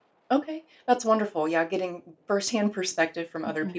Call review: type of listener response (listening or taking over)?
listening